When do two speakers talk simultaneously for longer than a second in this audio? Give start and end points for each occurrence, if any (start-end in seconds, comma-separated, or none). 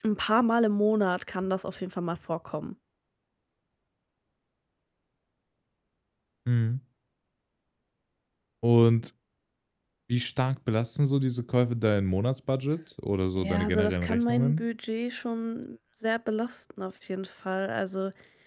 13.4-14.6